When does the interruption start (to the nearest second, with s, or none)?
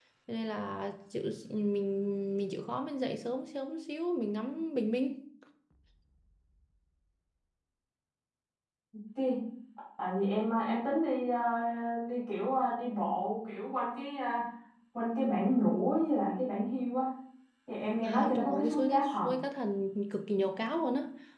18 s